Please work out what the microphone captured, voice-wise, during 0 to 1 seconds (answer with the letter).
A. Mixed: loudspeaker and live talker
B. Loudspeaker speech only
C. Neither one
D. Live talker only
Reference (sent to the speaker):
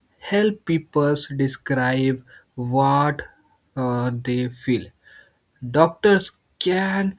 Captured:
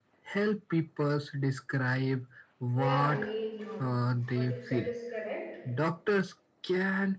B